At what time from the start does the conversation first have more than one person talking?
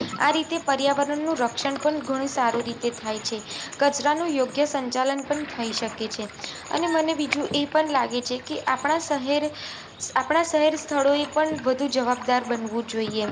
none

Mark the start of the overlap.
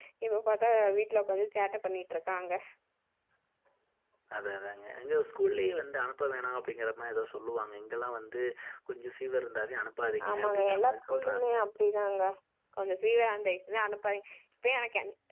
10 s

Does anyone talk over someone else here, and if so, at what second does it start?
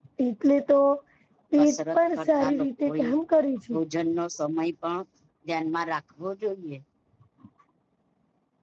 2 s

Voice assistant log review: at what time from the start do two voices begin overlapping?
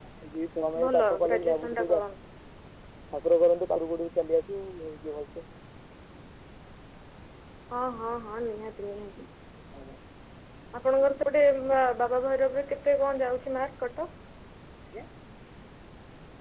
1 s

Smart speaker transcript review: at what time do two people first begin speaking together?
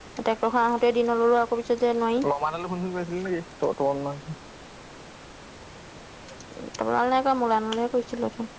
none

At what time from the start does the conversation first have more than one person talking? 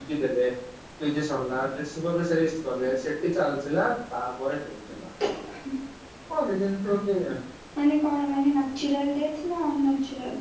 none

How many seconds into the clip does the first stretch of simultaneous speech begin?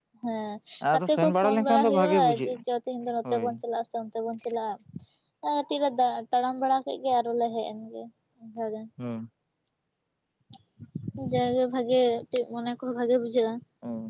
1 s

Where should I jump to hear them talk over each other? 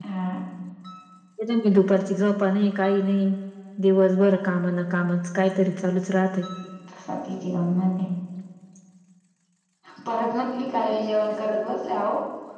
none

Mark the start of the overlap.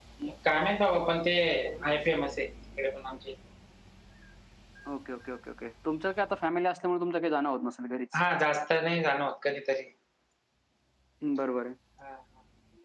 none

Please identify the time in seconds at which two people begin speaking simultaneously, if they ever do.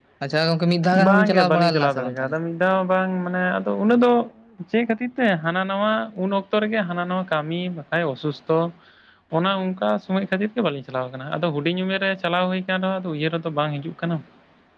1 s

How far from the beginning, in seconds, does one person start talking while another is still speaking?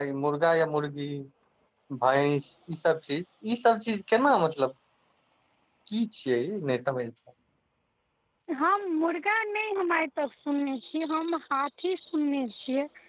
none

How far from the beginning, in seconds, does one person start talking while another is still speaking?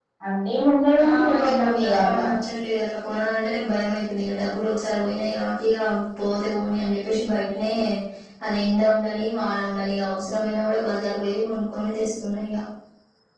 1 s

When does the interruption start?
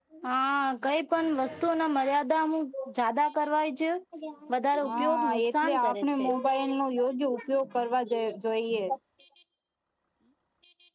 5 s

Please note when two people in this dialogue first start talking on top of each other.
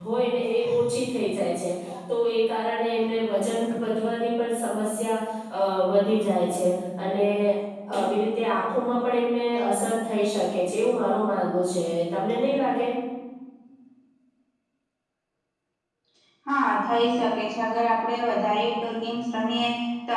none

